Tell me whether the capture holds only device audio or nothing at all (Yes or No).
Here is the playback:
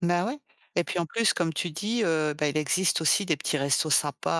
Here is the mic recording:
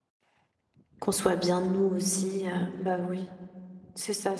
No